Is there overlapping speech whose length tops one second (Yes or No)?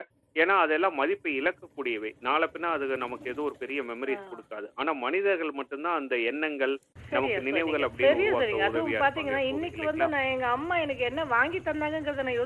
Yes